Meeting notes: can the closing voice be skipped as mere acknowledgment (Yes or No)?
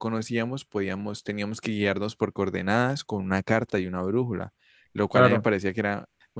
Yes